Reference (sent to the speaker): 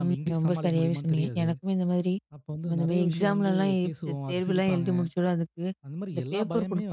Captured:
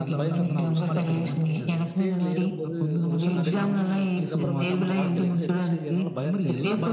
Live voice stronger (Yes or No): No